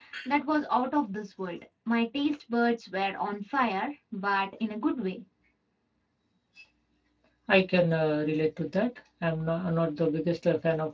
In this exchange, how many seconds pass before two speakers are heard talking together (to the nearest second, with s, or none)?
none